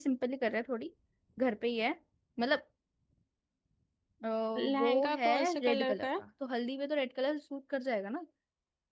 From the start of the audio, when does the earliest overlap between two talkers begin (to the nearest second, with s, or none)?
5 s